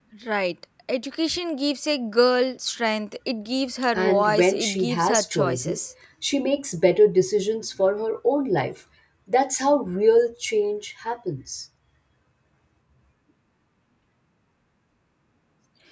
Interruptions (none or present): present